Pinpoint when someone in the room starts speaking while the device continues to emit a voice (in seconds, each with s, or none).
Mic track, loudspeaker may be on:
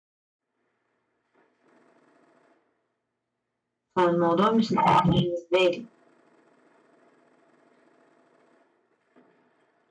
4.0 s